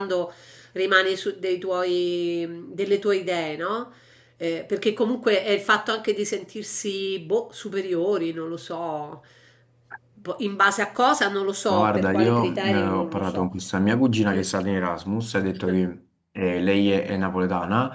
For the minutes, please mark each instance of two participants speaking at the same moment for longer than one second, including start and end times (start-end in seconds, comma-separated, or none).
11.7-13.5